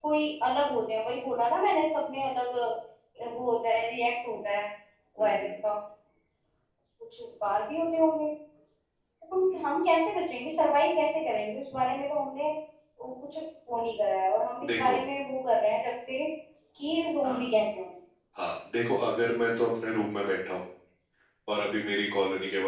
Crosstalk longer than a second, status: none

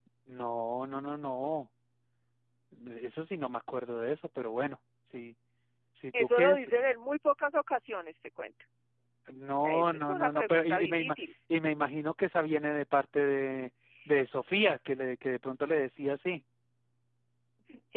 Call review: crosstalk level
present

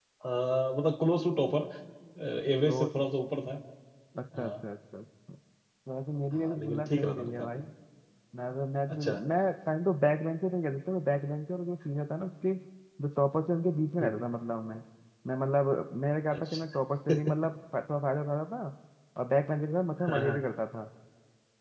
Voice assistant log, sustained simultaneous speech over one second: present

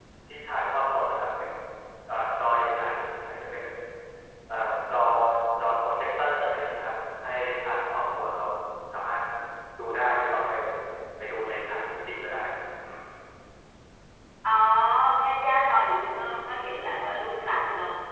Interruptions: none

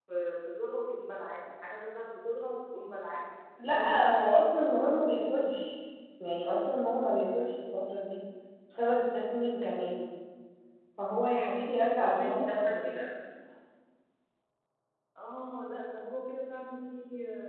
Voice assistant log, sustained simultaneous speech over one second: present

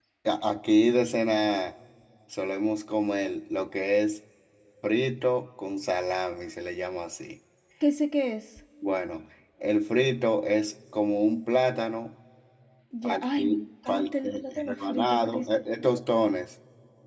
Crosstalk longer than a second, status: present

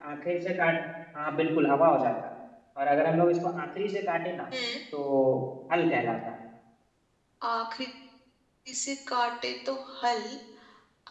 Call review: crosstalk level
none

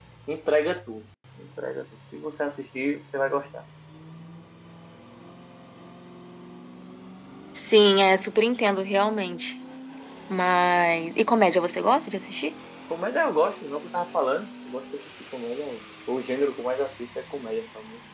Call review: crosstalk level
none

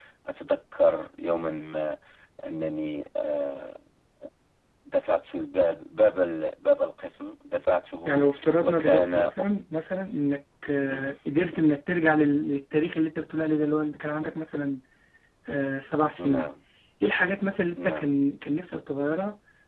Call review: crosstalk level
present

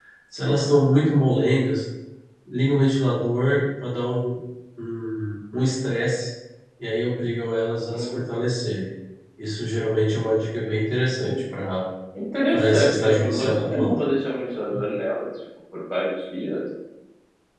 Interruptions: present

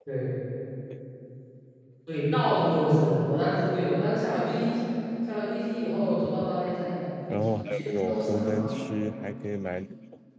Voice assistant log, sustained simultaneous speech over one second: present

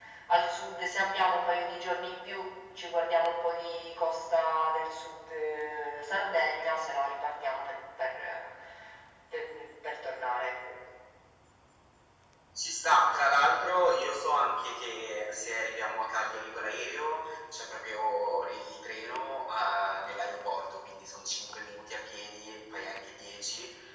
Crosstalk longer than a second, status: none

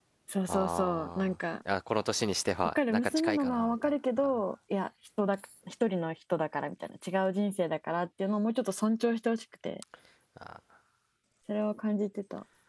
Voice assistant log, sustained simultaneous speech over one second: present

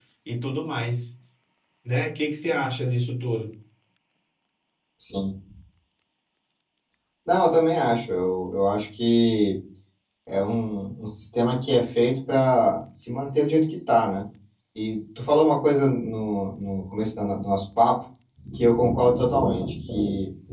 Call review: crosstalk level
none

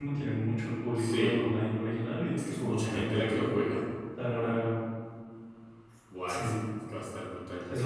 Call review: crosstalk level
present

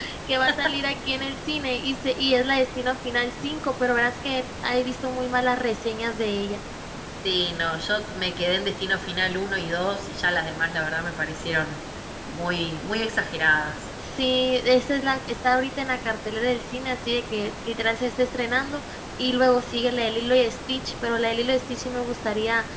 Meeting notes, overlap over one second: none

